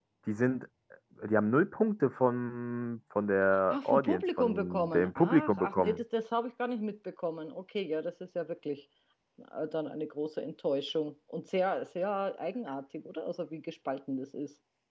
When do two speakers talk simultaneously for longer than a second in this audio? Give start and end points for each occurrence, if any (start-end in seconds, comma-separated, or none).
3.7-6.0